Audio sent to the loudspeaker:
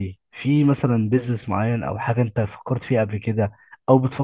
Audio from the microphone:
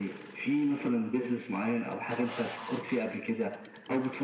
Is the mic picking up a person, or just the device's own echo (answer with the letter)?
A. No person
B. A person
A